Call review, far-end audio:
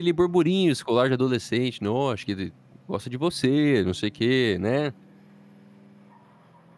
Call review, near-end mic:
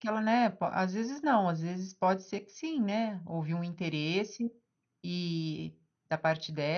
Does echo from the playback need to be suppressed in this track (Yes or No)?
No